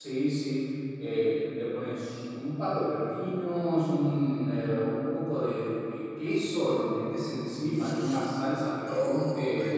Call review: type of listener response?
listening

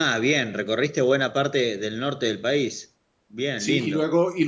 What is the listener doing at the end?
taking over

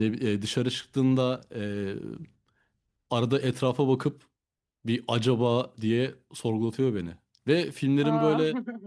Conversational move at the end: listening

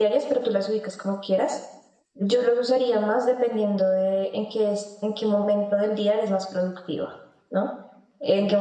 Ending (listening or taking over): listening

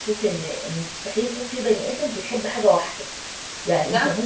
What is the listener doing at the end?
listening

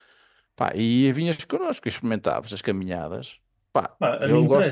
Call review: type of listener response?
taking over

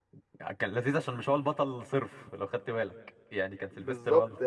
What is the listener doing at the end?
taking over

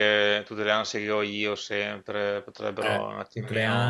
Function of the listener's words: taking over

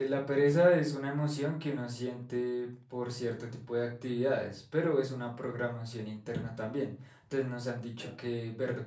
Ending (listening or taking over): listening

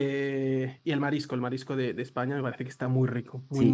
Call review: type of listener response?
taking over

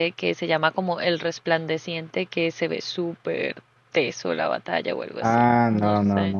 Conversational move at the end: taking over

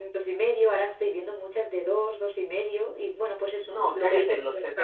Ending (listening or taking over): taking over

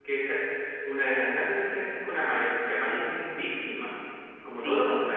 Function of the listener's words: taking over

